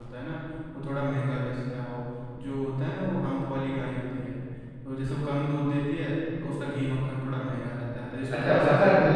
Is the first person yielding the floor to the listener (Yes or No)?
Yes